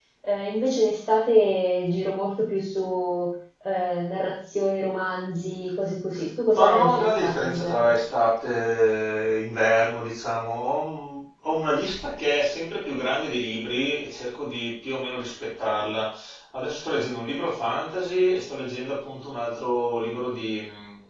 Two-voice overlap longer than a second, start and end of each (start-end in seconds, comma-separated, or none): 6.5-7.9